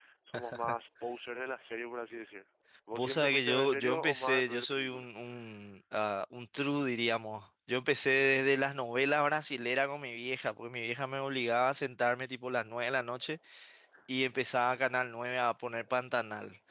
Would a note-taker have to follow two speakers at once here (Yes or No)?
Yes